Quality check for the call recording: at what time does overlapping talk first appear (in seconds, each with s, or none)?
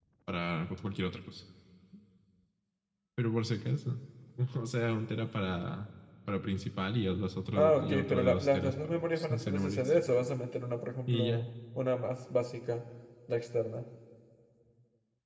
7.6 s